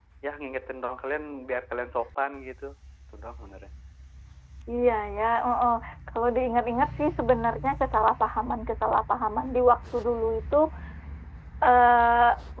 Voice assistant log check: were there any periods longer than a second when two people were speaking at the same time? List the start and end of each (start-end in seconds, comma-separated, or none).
none